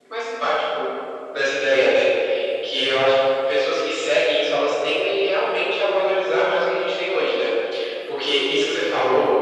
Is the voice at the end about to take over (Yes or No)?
No